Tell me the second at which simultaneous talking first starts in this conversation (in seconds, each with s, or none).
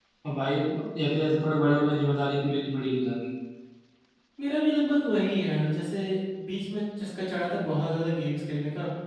none